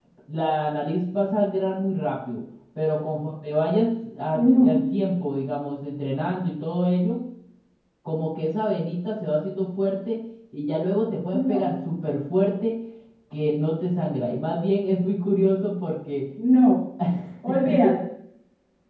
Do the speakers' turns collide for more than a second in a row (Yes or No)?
No